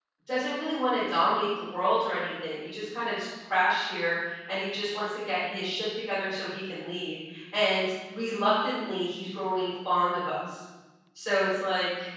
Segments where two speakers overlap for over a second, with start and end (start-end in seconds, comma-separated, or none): none